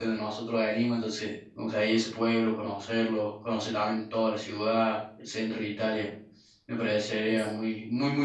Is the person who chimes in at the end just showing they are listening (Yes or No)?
Yes